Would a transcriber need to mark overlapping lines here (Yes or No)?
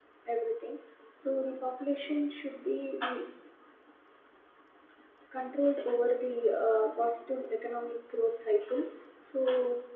No